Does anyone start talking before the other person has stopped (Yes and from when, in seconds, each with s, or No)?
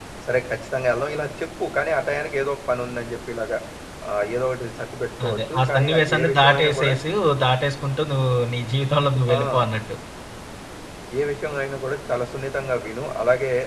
Yes, from 5.3 s